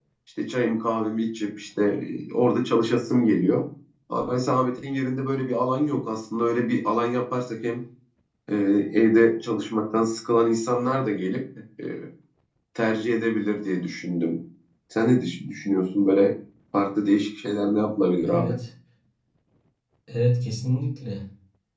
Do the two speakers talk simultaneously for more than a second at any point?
No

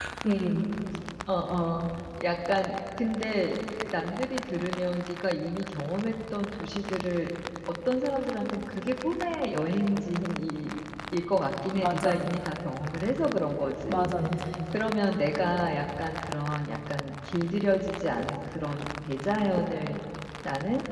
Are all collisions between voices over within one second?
Yes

